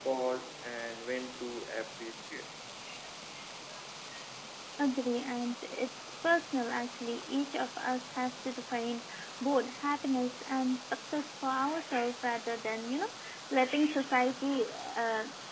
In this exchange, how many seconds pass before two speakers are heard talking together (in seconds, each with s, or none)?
none